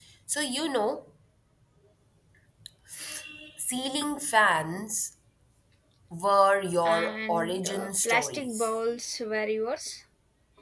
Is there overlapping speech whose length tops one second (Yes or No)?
Yes